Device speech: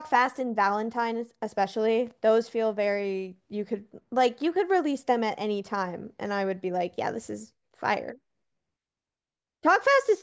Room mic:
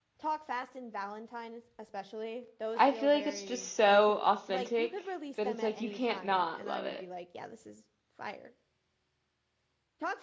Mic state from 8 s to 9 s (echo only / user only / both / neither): echo only